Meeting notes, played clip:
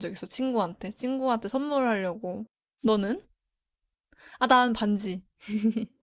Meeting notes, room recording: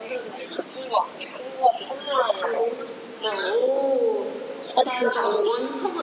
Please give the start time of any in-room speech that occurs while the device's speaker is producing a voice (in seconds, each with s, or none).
2.4 s